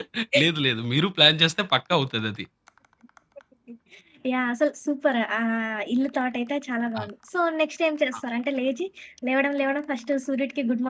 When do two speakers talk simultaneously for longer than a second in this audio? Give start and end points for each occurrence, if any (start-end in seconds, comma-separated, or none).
none